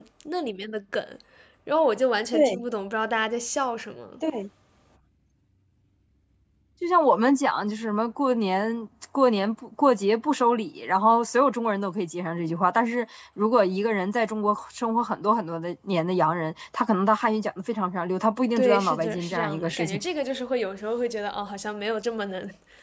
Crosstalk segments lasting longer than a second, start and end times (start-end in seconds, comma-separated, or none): 18.6-20.0